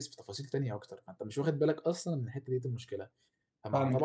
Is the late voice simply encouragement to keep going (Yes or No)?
Yes